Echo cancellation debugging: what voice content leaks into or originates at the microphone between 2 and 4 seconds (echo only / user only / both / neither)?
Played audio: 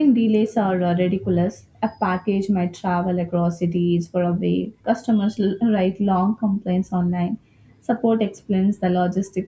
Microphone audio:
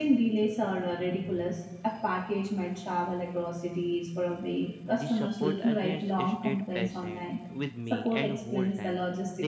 echo only